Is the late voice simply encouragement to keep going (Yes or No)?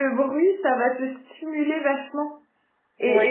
Yes